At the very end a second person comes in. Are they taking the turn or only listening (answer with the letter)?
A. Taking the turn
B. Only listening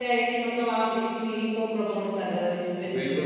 A